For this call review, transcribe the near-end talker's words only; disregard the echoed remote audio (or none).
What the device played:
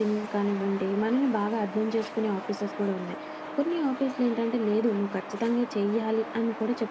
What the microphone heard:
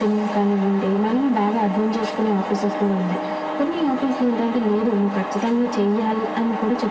none